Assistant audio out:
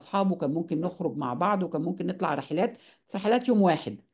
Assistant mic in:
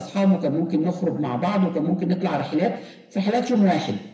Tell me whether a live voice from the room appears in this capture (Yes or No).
No